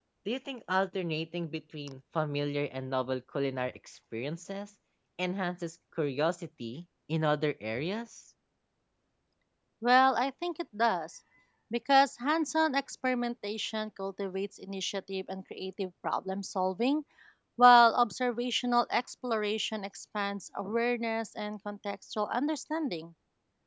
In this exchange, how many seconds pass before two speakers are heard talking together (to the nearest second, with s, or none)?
none